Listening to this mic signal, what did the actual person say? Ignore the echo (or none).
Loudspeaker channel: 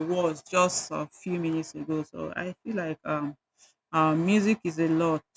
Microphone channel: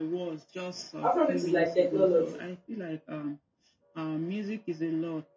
afrobeat is like technology